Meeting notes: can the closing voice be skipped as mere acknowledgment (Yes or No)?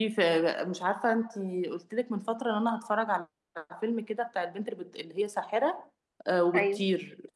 Yes